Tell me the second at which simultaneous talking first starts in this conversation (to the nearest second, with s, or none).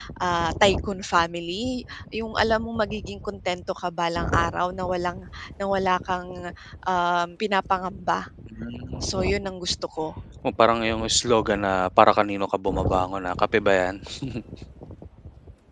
none